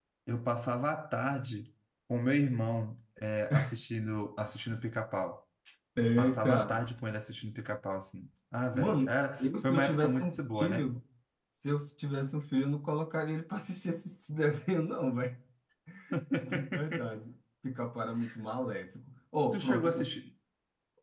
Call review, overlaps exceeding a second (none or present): present